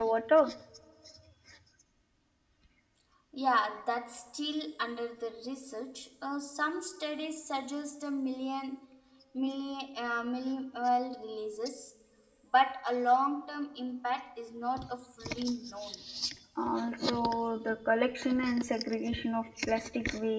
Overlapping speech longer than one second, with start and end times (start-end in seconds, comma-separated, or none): none